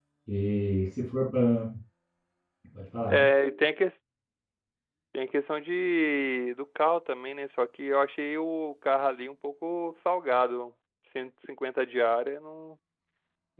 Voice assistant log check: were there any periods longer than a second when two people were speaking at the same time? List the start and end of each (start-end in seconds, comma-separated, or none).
none